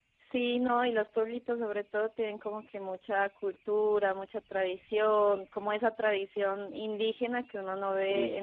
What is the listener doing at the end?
listening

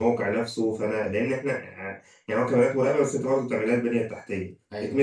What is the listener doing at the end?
listening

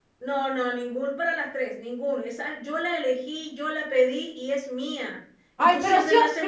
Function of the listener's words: taking over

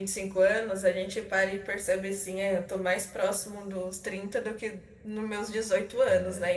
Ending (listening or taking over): taking over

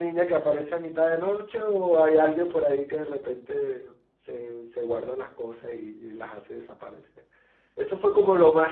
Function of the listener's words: listening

